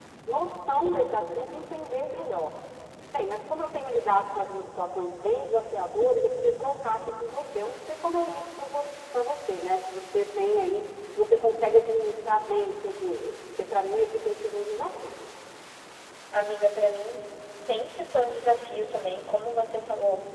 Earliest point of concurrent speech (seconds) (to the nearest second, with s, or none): none